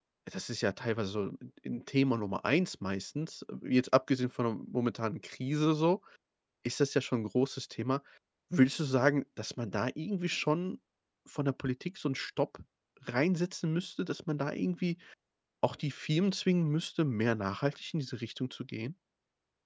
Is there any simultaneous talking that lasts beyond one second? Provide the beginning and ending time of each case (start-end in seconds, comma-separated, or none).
none